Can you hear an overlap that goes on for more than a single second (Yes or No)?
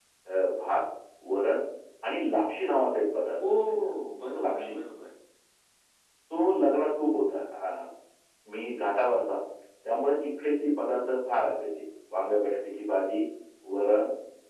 No